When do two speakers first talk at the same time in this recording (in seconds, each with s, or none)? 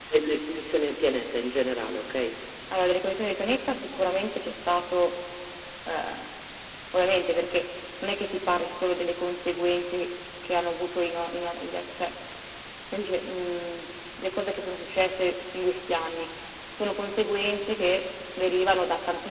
none